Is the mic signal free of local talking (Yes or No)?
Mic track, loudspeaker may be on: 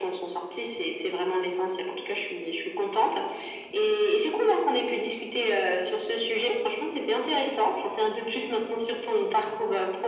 Yes